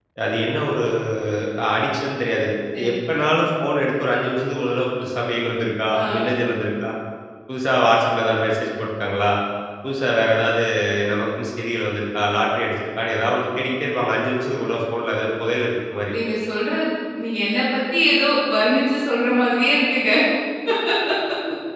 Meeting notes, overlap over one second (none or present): none